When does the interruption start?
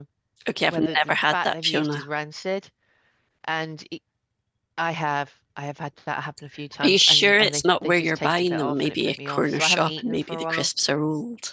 0.7 s

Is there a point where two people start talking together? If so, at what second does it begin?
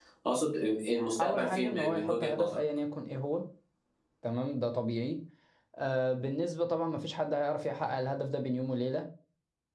1.2 s

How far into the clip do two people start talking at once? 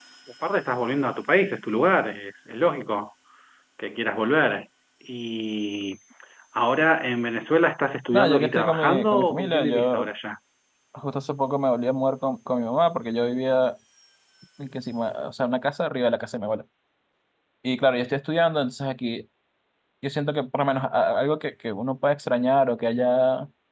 8.1 s

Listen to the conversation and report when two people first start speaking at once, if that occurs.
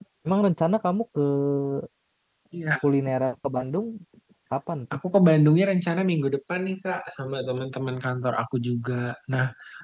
none

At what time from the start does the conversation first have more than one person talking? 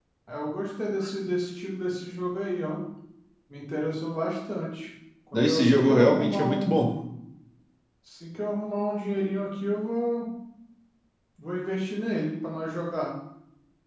5.3 s

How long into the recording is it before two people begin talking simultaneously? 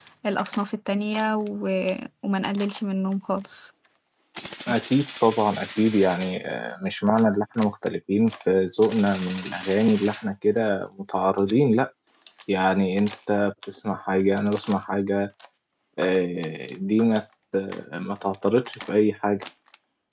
none

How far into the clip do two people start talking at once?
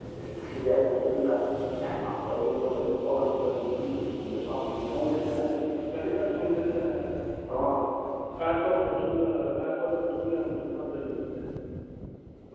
none

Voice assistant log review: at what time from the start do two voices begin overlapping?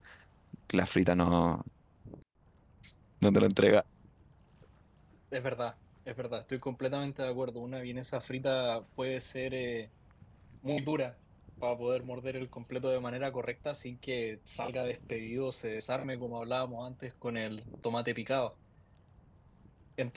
none

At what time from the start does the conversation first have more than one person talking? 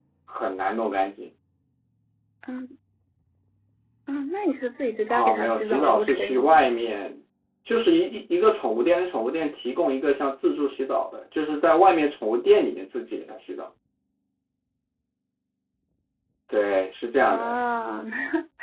5.1 s

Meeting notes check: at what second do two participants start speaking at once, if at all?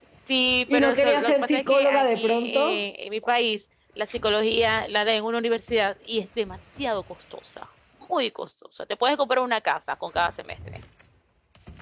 0.7 s

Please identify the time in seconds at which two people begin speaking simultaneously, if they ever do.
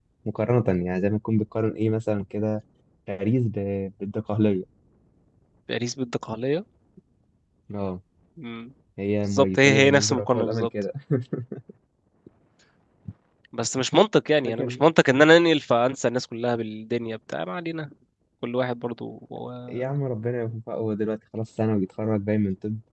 9.3 s

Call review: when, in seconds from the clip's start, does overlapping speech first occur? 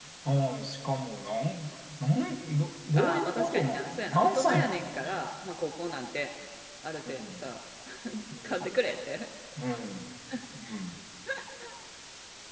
3.0 s

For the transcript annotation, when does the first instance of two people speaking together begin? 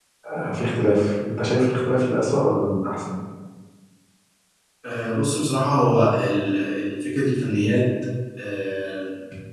none

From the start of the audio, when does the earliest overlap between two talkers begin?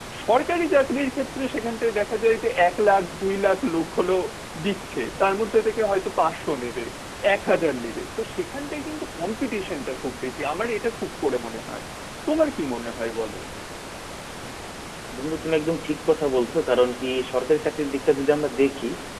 none

